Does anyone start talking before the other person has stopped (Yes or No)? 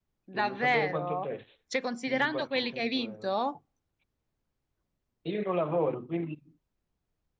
Yes